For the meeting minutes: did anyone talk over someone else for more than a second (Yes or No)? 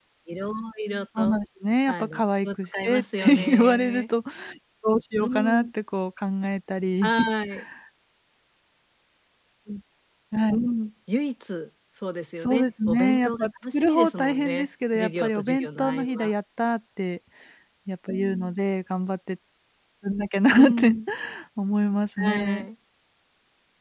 Yes